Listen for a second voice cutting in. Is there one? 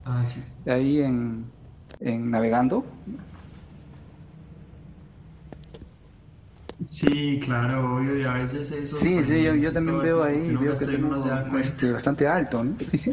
Yes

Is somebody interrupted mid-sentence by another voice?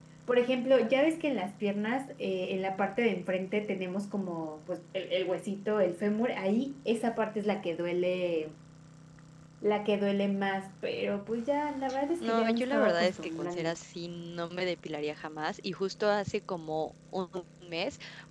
Yes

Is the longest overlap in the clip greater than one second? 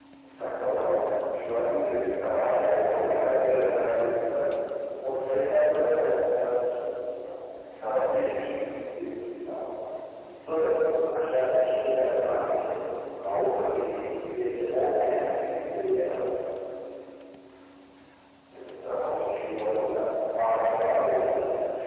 Yes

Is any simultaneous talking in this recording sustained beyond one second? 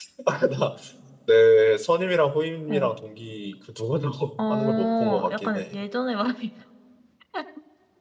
Yes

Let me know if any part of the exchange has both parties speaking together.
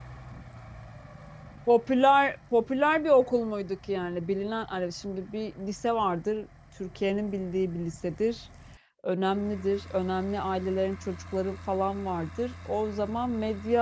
No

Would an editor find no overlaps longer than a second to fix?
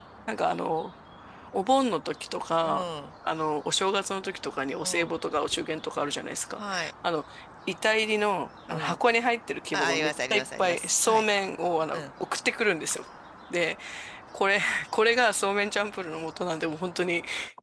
No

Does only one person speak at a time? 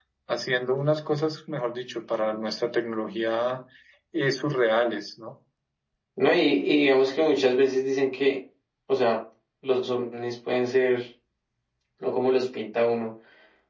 Yes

